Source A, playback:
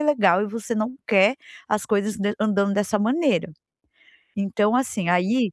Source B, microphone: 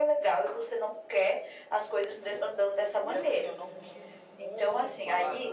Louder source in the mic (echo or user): echo